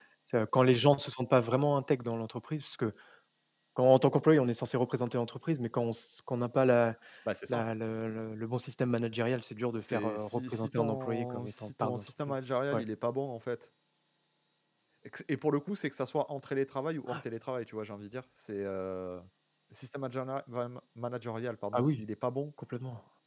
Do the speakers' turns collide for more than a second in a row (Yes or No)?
Yes